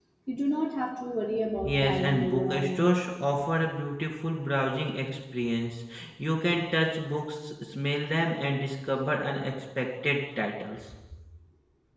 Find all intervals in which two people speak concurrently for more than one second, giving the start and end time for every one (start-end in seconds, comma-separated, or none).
1.6-2.9